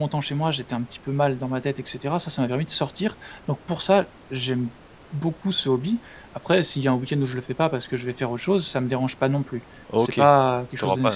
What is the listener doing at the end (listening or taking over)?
taking over